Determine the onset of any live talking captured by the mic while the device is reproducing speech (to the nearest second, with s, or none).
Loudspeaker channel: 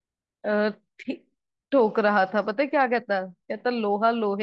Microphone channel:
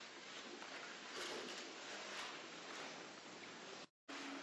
none